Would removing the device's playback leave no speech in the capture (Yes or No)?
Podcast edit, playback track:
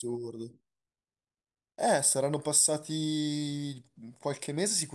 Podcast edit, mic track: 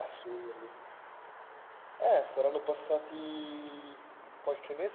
Yes